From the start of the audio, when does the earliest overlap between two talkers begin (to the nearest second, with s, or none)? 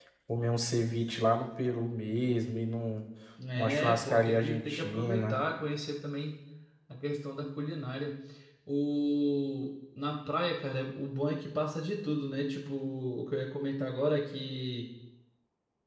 4 s